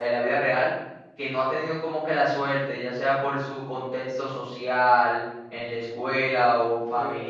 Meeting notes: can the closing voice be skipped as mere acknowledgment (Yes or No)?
No